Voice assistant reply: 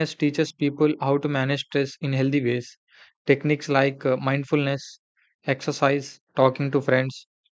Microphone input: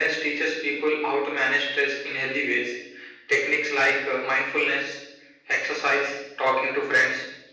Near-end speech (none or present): none